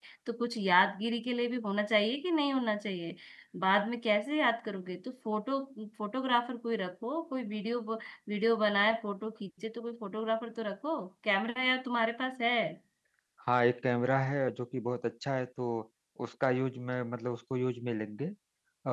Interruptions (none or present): none